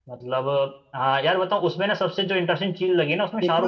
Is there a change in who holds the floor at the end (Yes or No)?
Yes